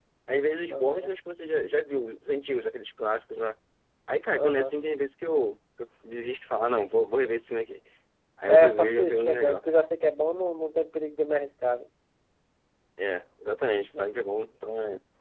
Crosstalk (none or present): present